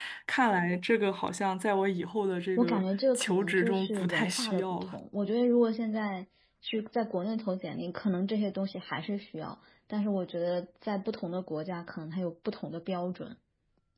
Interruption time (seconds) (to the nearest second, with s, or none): 3 s